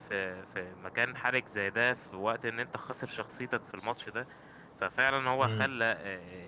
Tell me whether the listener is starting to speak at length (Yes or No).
No